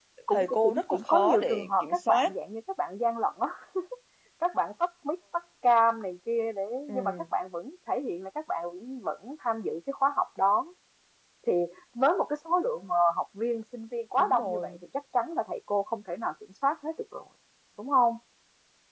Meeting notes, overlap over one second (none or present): present